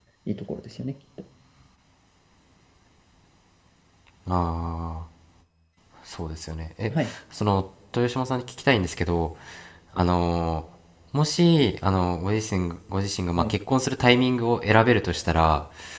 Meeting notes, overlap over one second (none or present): none